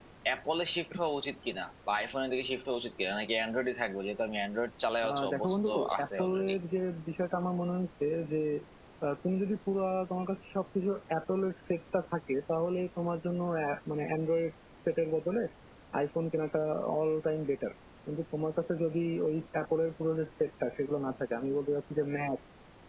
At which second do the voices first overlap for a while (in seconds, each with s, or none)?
5.0 s